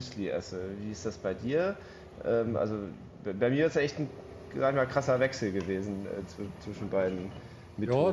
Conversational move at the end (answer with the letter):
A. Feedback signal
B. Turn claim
B